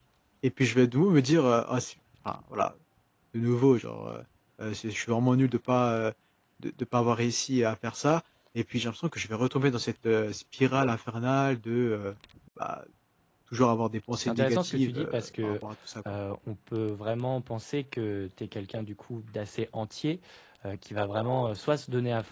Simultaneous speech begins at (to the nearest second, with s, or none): 14 s